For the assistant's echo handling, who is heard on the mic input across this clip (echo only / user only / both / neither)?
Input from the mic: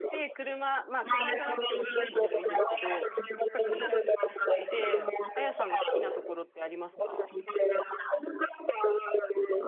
both